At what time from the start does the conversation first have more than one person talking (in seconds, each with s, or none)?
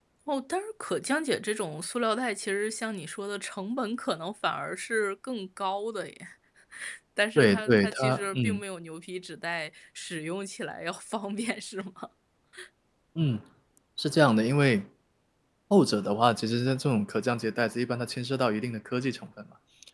7.4 s